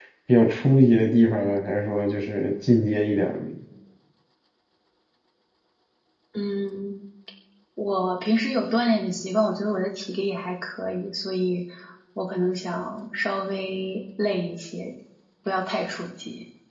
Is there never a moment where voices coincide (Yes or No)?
Yes